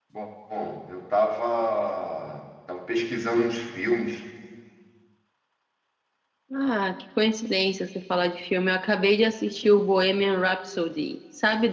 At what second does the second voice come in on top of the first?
none

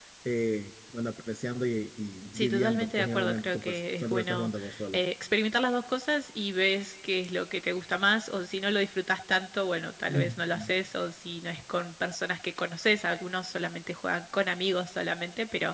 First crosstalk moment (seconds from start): 2.3 s

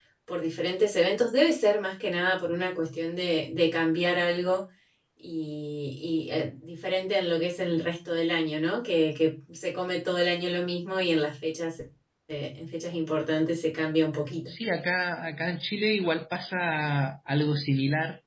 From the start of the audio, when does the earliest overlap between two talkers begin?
none

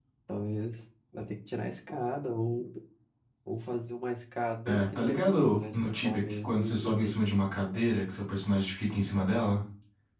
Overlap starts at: 4.7 s

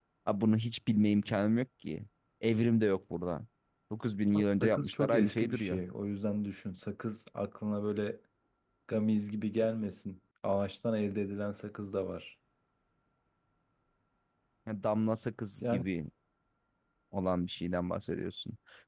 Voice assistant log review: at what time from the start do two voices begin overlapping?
4.4 s

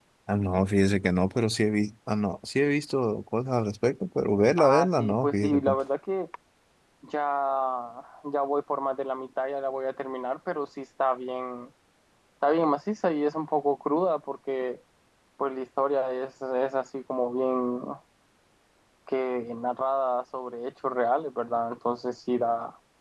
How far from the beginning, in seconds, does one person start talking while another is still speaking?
4.6 s

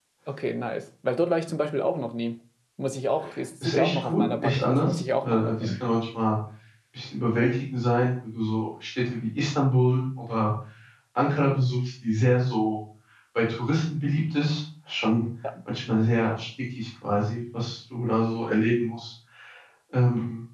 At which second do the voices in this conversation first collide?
3.6 s

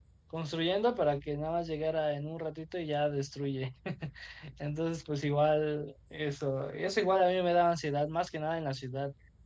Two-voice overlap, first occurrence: none

